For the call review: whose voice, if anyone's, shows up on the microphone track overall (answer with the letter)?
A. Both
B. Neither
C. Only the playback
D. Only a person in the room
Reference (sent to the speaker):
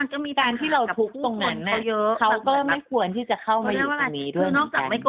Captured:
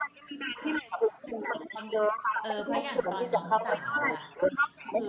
A